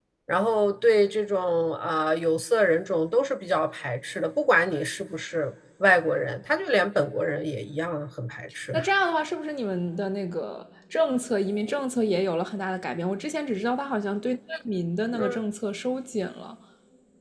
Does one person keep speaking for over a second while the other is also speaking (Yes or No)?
No